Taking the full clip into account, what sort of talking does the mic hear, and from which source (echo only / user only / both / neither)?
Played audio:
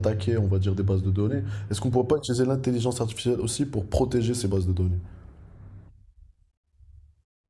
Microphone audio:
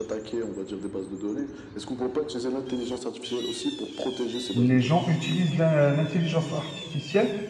both